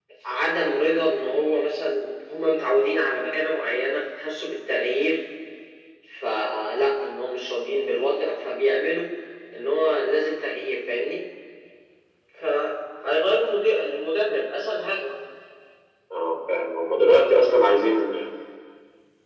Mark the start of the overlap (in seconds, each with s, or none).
none